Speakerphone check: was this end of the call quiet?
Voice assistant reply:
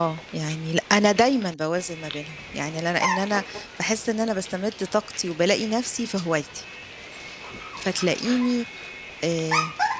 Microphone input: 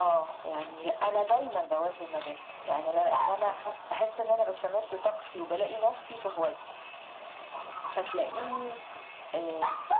Yes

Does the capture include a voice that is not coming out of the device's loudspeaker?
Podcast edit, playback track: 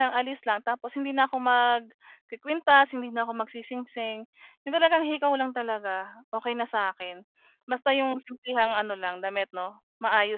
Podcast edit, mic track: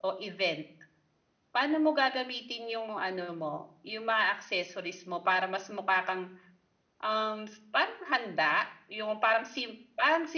Yes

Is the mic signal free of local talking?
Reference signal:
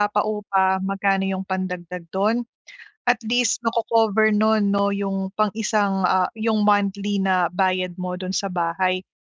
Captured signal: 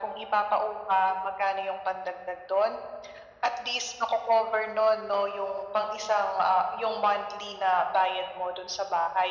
Yes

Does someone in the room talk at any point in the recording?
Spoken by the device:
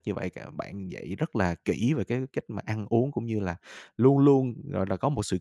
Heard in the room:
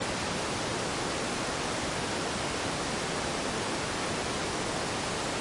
No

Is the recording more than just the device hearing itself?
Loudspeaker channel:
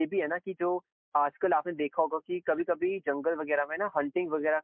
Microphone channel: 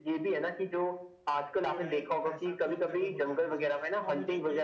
Yes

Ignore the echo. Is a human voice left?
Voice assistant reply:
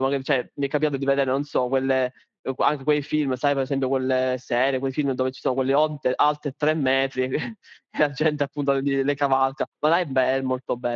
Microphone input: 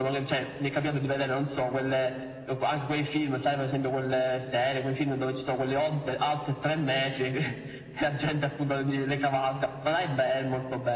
No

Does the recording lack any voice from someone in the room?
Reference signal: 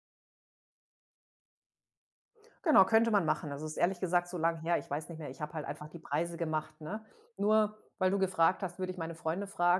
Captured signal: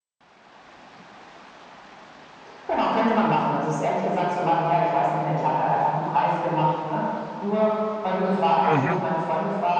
No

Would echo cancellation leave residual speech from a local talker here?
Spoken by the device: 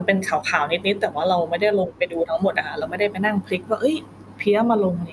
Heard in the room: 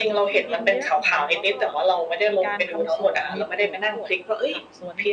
Yes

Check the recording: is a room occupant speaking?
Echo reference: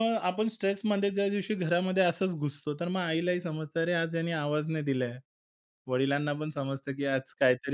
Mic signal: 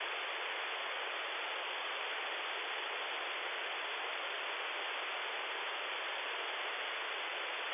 No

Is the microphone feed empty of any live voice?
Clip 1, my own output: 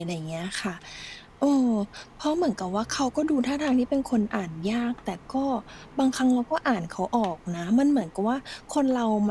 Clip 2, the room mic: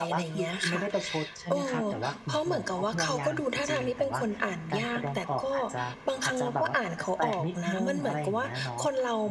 No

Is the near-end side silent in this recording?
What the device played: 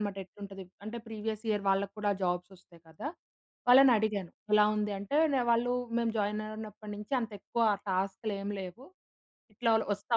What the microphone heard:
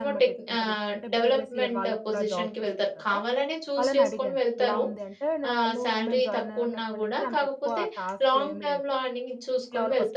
No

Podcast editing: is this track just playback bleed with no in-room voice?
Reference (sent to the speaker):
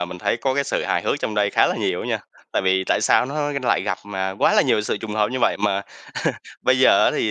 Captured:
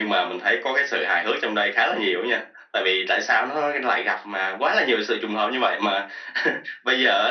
Yes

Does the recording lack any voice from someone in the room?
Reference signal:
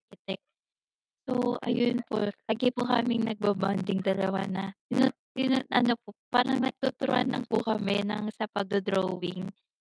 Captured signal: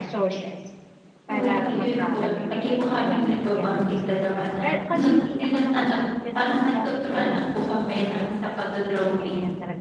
No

